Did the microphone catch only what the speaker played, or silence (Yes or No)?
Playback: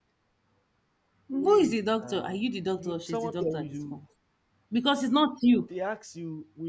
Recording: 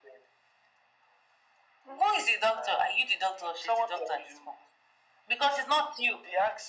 Yes